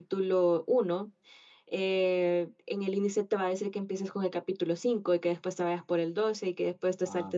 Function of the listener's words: listening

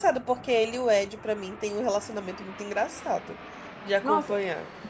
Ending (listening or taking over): taking over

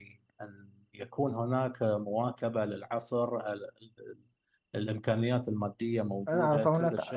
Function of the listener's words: taking over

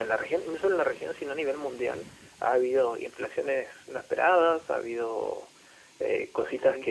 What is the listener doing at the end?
listening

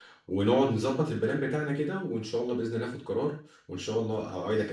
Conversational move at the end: taking over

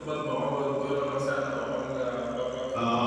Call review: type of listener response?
taking over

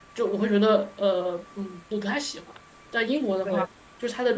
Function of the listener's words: listening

